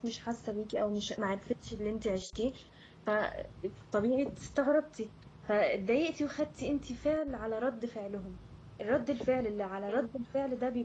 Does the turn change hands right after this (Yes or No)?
No